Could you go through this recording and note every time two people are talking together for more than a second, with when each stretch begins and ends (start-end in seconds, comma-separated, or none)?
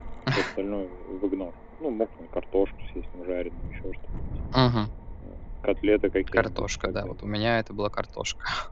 6.3-7.5